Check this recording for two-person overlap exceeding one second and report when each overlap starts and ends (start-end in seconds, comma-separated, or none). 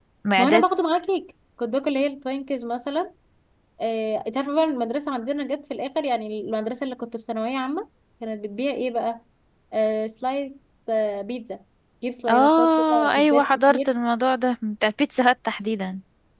12.3-13.9